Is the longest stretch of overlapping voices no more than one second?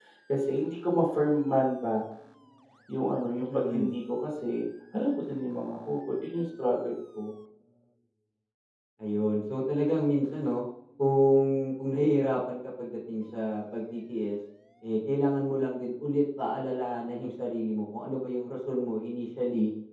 Yes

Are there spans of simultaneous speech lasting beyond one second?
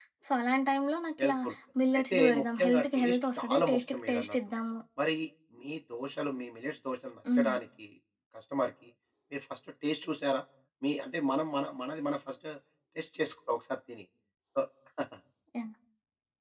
Yes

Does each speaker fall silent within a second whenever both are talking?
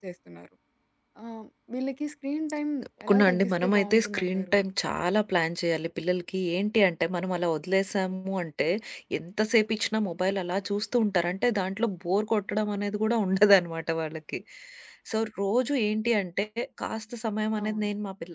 No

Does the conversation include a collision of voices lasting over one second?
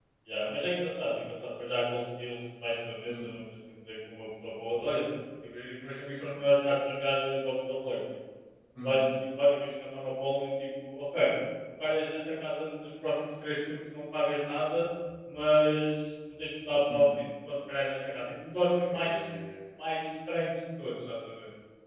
No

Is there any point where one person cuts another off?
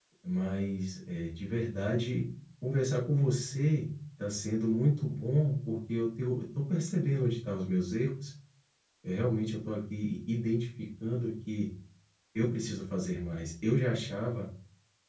No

